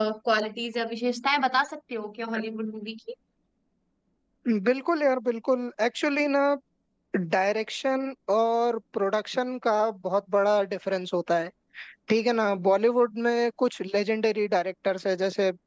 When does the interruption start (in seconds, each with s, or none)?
none